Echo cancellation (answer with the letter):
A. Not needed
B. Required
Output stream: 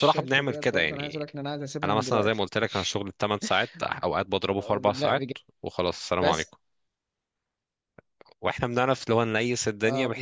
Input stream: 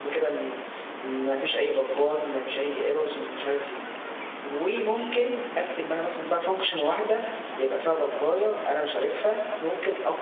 A